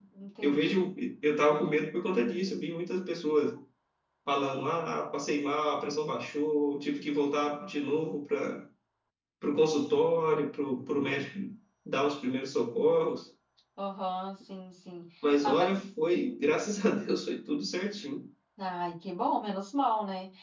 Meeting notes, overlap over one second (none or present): none